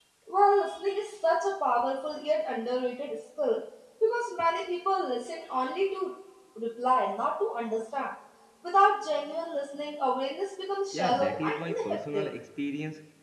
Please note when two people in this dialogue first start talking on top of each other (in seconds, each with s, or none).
10.9 s